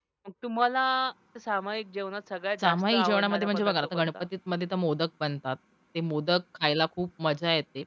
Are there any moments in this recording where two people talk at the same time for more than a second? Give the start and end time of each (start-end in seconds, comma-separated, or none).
2.6-4.2